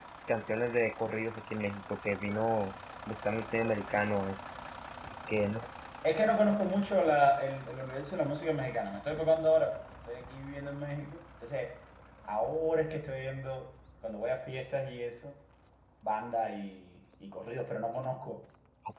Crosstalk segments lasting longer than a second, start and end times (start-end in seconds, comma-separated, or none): none